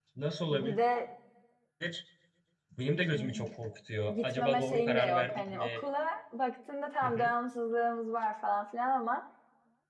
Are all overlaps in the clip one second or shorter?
No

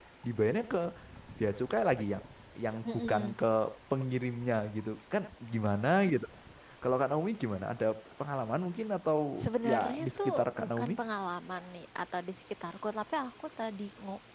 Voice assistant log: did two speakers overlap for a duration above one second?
Yes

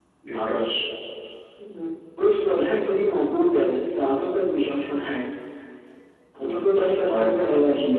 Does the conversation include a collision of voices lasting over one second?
Yes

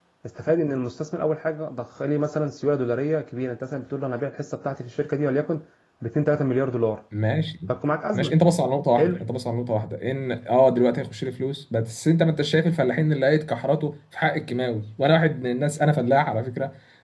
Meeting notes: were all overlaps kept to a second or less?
Yes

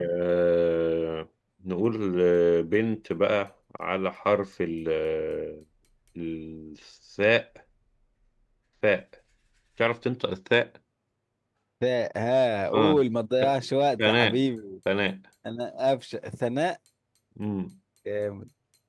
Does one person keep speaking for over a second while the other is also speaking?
No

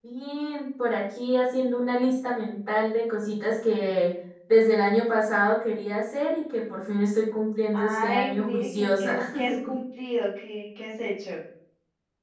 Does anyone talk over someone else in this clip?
Yes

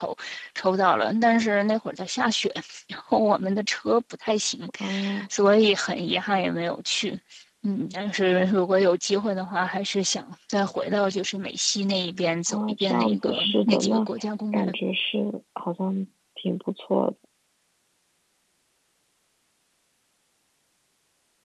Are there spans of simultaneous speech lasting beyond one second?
Yes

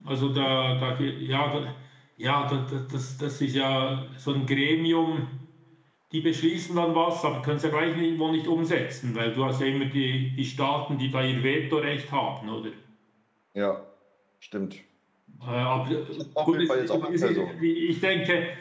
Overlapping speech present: Yes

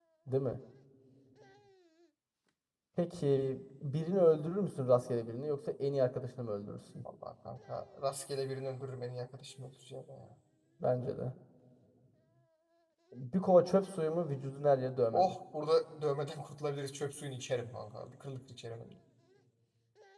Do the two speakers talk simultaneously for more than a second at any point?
No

